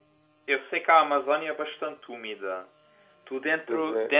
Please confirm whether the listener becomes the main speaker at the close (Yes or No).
No